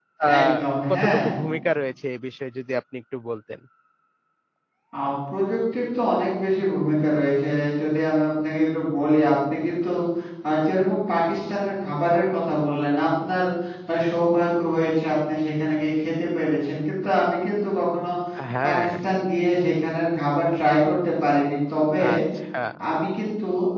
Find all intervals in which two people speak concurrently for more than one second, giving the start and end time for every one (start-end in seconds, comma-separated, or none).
none